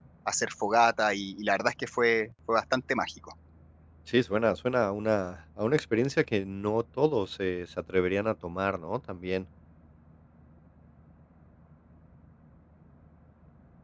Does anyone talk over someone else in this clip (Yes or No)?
No